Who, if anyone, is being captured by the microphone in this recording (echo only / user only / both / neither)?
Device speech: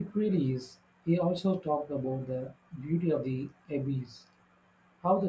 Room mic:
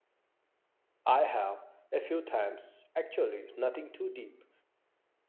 user only